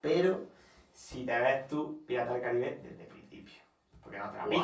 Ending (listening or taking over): taking over